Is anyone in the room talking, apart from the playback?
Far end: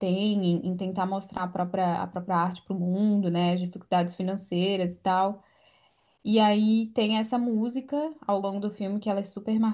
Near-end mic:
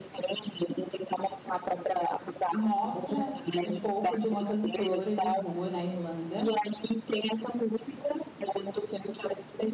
Yes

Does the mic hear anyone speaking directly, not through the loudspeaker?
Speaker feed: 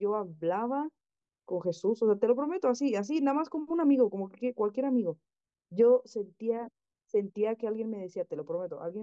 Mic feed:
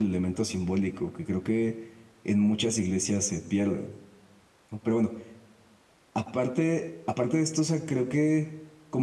Yes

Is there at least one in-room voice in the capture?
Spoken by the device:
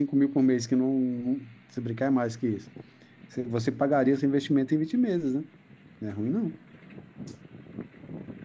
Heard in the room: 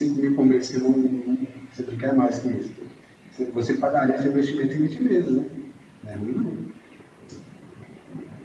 No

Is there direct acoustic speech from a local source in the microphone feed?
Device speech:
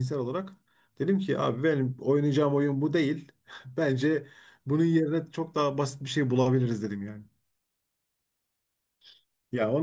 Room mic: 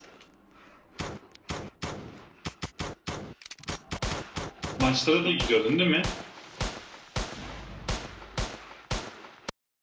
Yes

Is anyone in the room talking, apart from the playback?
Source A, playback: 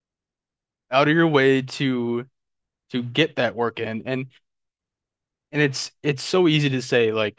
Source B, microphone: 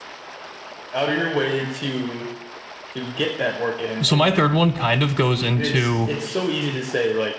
Yes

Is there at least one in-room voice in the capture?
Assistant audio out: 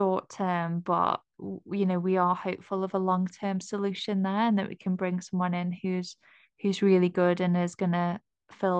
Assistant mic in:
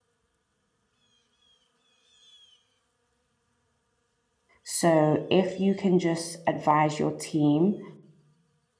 Yes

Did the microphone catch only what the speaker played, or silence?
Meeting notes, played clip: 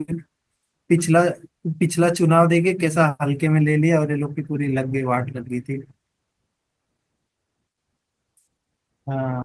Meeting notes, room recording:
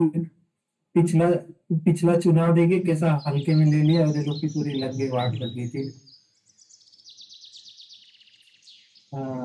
Yes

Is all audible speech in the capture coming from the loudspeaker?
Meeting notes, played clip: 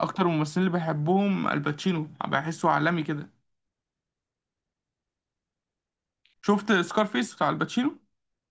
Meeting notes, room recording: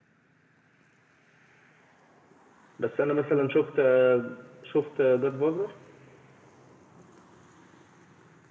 No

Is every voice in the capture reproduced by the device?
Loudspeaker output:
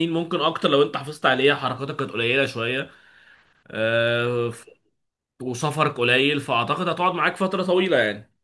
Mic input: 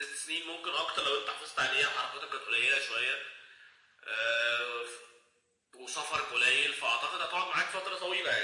Yes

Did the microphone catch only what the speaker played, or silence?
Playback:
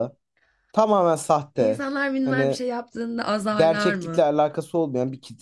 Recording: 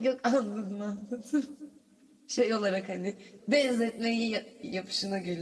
No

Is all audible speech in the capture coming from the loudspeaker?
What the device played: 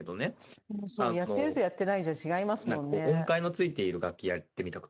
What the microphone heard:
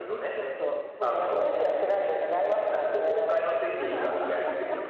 No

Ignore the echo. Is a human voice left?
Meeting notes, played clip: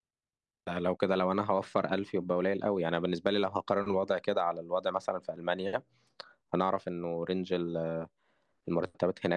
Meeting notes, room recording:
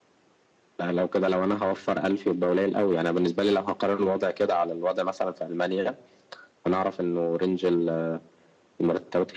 No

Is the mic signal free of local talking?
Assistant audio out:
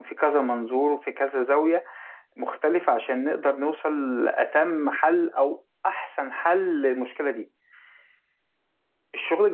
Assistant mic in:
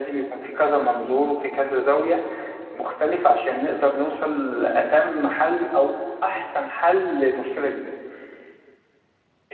Yes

